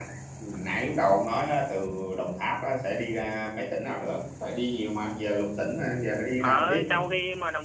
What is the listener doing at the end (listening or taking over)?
taking over